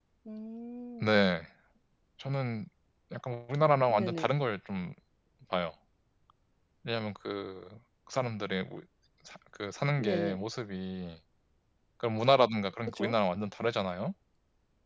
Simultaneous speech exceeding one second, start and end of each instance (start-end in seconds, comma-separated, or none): none